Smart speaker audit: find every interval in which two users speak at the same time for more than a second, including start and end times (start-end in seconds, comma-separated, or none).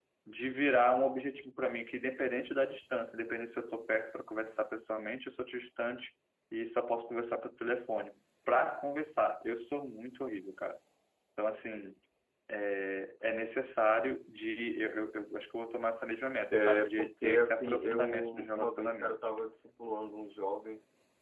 16.5-19.2